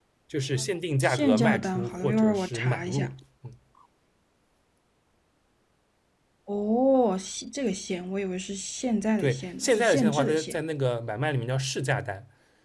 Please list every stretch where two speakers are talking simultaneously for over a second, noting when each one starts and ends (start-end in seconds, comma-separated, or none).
1.1-3.1, 9.2-10.5